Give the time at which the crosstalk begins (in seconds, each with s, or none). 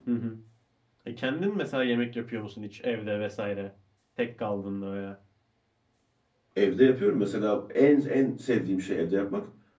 none